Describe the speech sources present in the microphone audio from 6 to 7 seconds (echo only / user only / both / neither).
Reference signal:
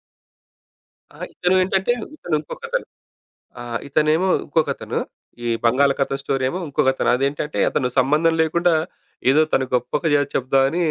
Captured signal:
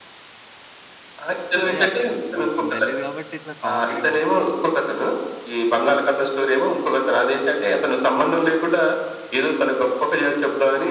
echo only